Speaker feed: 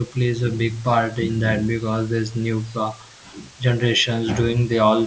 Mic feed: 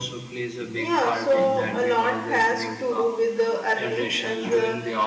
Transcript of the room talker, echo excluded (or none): Yeah, so a lot has to do with the early and the,